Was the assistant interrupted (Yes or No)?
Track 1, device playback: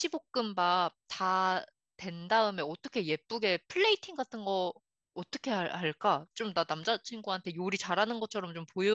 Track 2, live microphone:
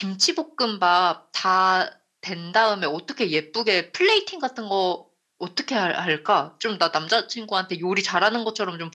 No